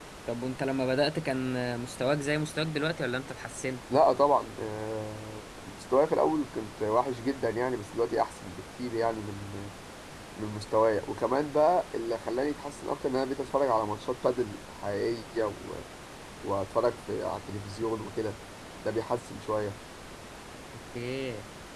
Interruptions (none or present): none